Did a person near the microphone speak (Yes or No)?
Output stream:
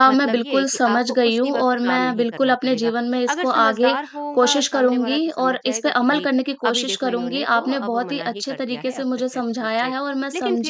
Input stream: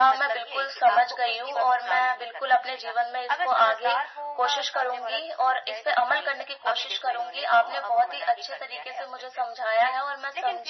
No